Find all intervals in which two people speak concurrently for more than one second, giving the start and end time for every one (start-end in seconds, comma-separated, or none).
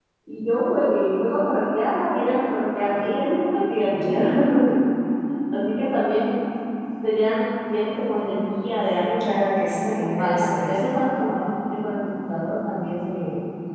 9.2-10.8